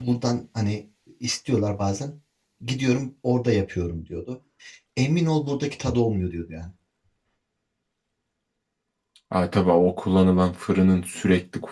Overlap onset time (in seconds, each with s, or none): none